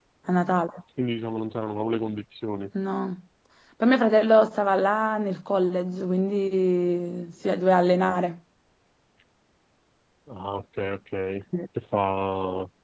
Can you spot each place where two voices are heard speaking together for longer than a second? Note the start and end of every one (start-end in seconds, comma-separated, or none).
none